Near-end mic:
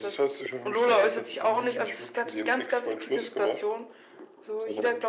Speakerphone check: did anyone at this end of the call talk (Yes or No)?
No